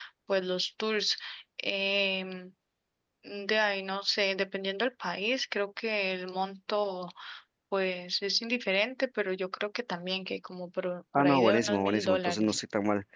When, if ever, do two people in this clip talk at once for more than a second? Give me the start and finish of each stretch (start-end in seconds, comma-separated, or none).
11.2-12.6